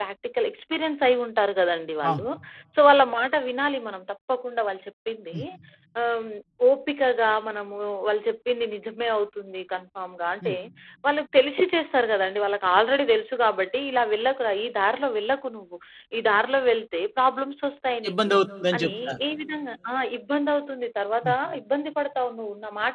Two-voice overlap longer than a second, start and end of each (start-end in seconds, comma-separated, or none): none